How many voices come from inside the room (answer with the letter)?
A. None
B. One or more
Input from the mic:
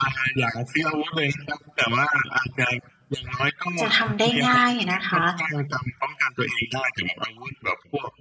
B